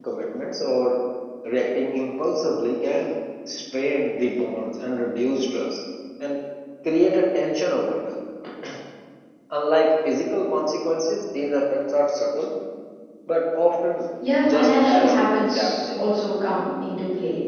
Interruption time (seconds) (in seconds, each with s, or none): 14.4 s